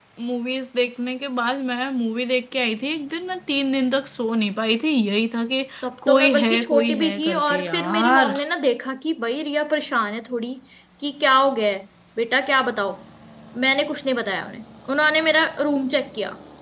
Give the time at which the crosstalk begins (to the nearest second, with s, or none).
6 s